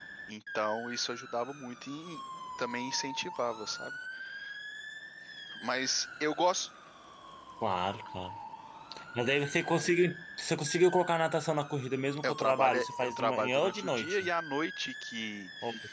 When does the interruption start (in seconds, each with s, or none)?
12.2 s